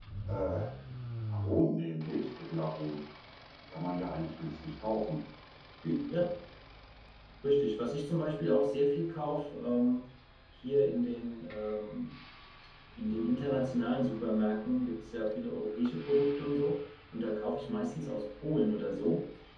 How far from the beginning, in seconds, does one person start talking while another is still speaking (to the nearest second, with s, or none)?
none